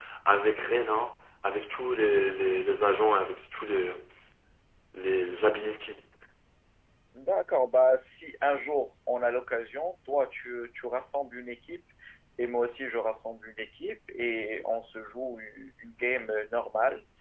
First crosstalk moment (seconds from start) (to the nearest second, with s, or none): none